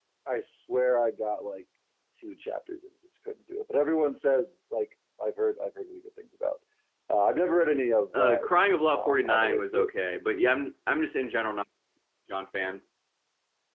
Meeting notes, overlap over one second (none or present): present